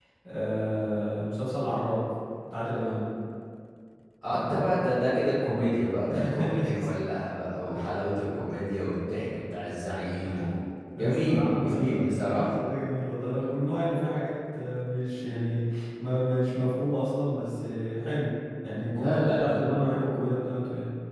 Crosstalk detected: Yes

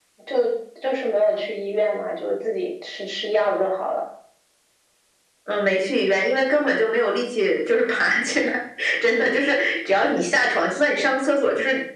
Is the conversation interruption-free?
Yes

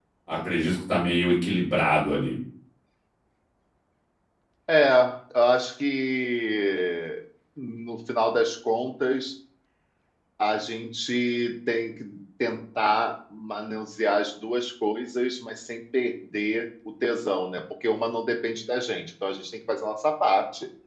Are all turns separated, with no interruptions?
Yes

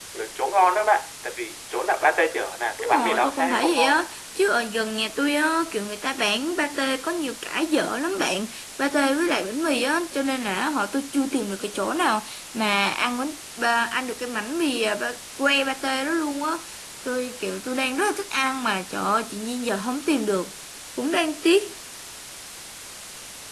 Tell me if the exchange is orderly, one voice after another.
No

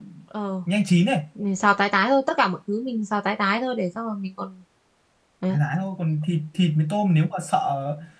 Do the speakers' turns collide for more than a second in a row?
No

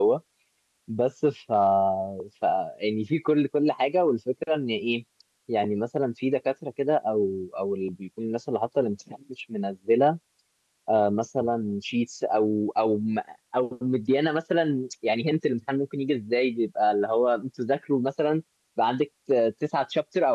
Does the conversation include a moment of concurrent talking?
No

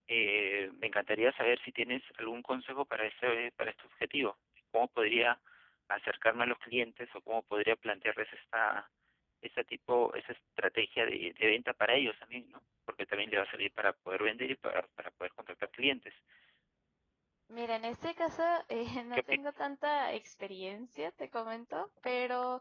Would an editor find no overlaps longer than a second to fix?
Yes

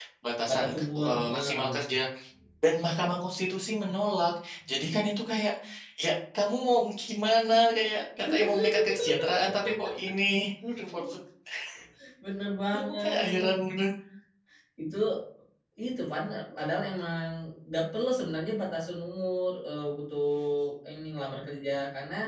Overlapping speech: Yes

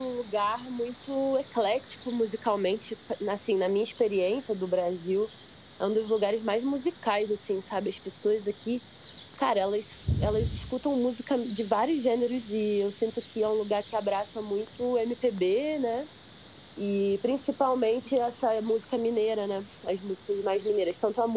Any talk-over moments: No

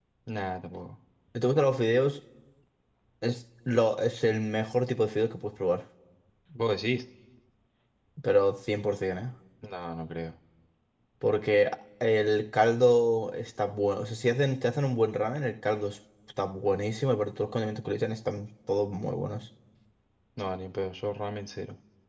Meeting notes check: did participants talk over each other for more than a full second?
No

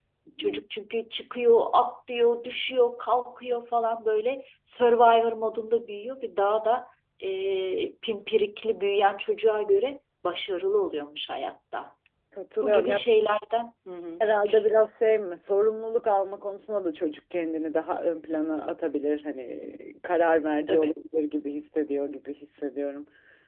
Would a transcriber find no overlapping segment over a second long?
Yes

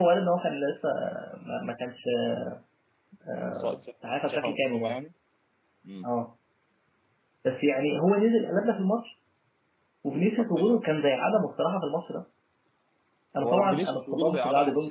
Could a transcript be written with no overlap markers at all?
No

